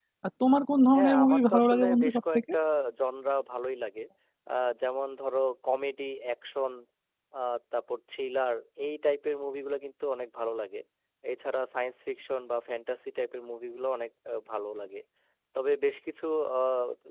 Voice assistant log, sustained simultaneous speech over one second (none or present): present